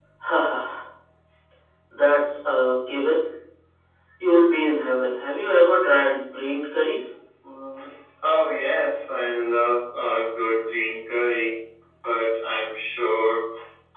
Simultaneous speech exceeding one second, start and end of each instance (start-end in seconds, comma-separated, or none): none